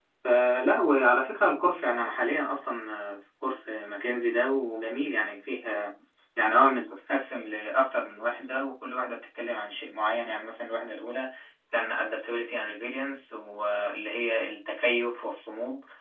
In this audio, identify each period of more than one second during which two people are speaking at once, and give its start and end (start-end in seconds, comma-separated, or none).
none